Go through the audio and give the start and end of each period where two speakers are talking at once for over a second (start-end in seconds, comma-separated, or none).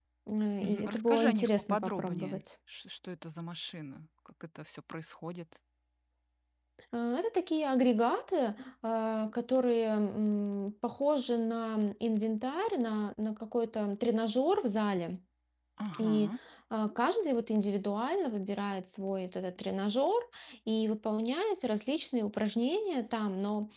0.6-2.4